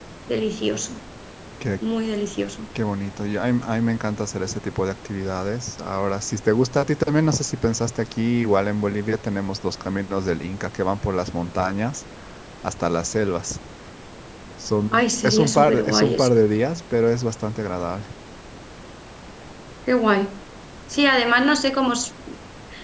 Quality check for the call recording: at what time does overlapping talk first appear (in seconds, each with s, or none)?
14.9 s